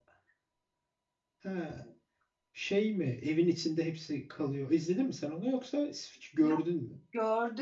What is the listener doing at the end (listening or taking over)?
taking over